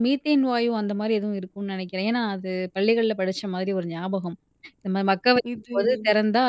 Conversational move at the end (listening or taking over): listening